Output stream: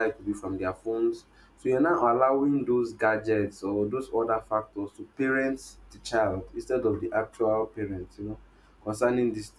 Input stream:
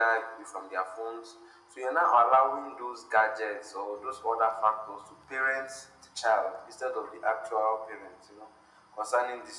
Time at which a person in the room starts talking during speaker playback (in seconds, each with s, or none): none